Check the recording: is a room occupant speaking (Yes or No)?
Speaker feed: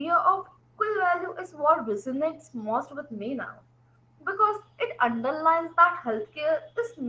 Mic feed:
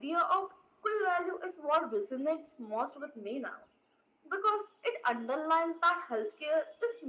No